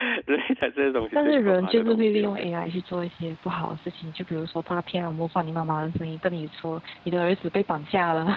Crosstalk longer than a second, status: present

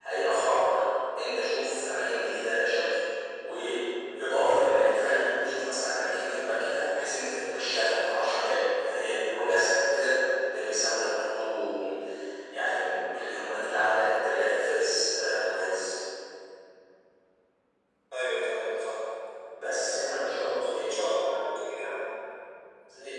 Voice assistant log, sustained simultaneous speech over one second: none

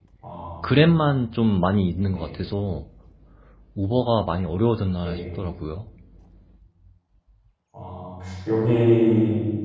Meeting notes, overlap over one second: none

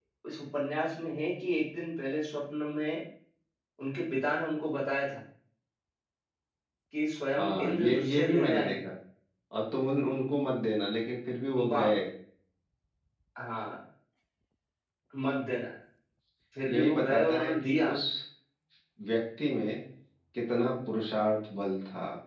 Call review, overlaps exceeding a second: present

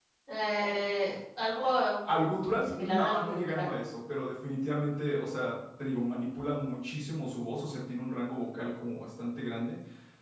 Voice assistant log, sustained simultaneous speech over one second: present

